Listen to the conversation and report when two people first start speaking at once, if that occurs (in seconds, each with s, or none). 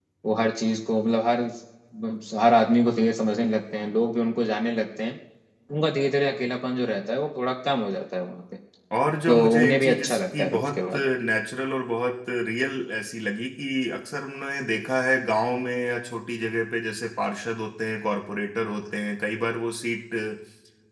9.3 s